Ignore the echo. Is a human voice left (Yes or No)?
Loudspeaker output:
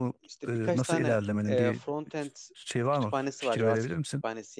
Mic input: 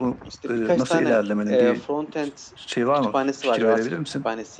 No